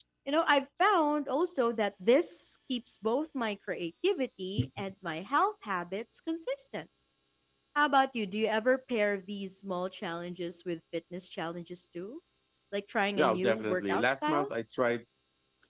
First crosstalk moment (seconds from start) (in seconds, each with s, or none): 13.2 s